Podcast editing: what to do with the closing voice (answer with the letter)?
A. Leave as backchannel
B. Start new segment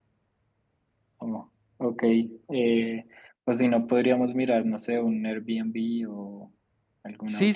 B